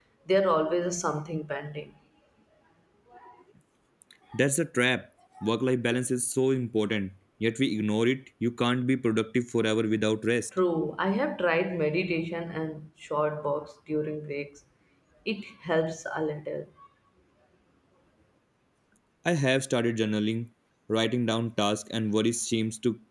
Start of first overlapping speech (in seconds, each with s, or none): none